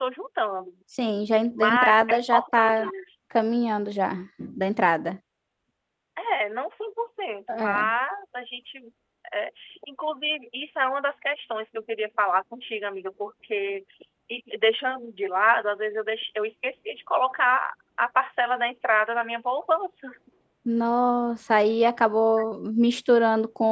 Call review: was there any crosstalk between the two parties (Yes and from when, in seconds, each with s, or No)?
Yes, from 1.5 s